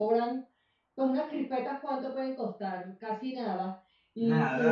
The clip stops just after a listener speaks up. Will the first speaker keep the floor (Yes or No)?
Yes